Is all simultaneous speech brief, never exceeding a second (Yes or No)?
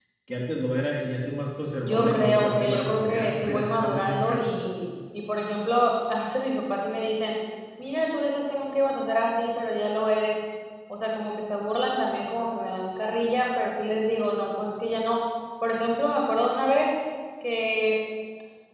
No